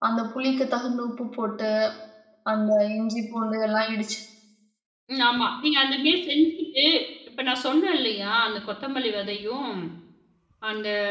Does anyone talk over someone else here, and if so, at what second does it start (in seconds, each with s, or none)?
none